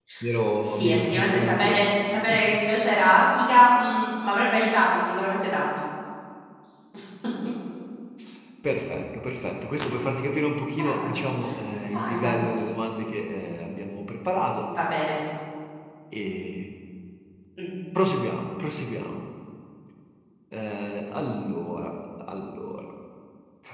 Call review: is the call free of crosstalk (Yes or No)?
No